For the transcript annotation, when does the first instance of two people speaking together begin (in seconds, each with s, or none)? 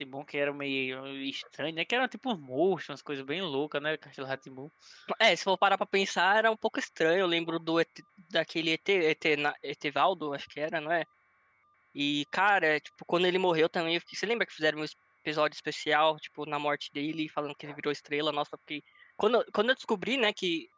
none